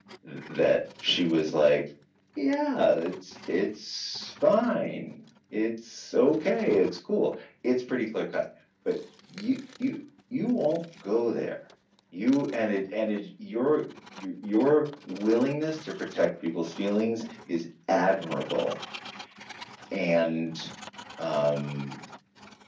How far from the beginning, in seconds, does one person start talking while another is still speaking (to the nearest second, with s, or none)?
none